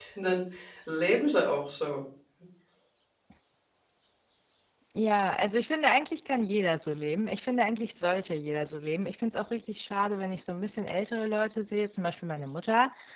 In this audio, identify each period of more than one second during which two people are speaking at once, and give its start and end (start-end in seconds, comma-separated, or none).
none